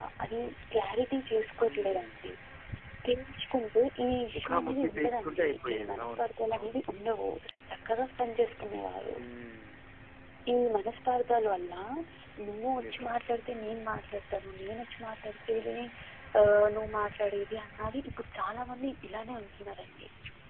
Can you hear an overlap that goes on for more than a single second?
Yes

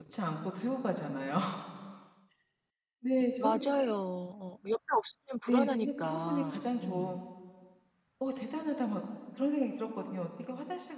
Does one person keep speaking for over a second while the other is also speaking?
Yes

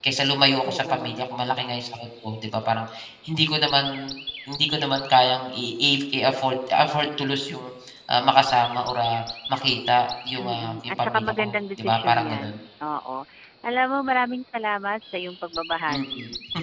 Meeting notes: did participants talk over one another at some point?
Yes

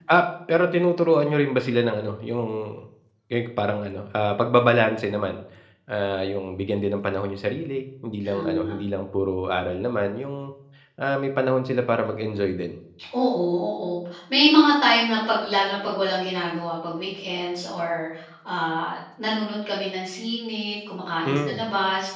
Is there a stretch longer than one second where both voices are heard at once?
No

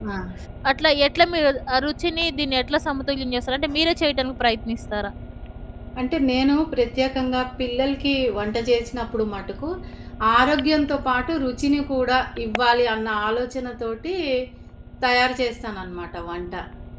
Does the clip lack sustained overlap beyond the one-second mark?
Yes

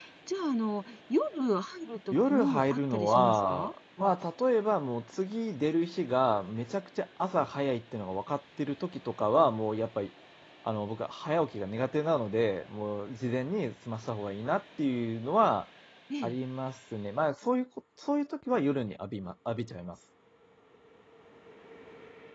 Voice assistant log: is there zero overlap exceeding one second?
No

